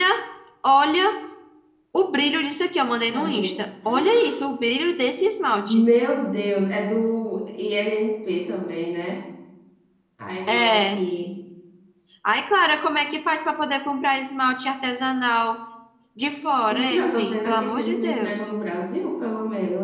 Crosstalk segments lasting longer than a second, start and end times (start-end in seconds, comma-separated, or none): 17.2-18.4